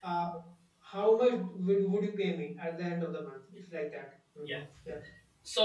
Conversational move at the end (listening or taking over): taking over